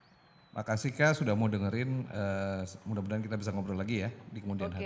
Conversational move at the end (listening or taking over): taking over